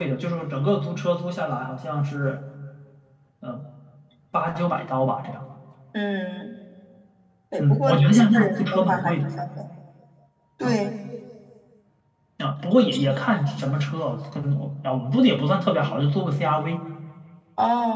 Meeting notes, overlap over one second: present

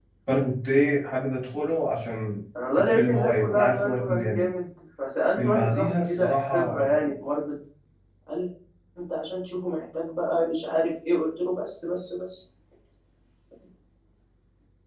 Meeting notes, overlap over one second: present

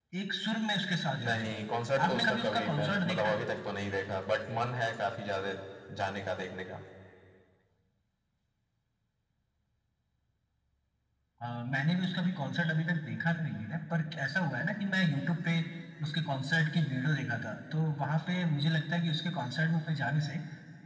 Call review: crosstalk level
present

